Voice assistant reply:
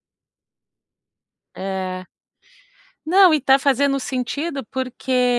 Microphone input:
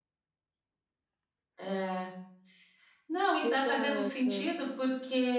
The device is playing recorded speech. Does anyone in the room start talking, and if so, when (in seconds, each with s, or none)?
3.4 s